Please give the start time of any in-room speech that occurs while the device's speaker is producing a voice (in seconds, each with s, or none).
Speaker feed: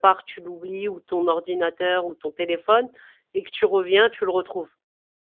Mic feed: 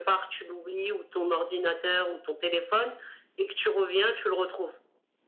none